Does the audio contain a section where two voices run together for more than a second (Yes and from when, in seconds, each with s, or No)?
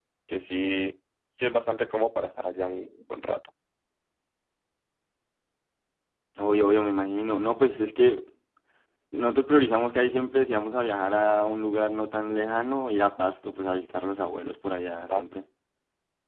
No